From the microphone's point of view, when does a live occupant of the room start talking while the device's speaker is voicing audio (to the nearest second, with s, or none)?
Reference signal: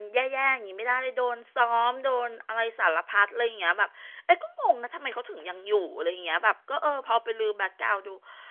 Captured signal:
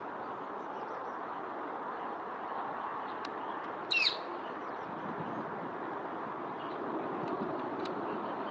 none